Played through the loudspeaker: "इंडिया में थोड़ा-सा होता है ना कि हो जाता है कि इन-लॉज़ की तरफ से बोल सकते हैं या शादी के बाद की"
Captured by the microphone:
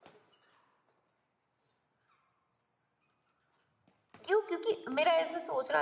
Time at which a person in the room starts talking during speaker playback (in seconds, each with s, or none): 4.2 s